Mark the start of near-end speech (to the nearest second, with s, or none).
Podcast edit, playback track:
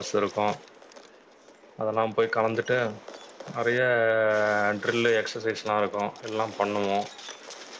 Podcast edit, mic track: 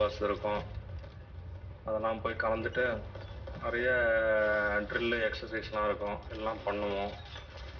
none